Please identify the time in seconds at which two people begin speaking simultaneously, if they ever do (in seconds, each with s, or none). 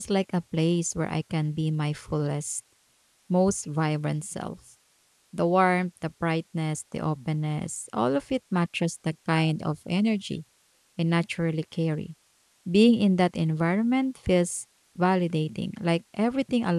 none